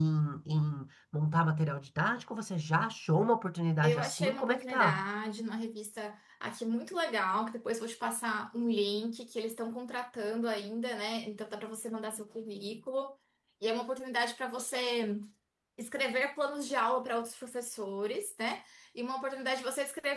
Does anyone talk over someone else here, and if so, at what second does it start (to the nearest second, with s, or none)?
4 s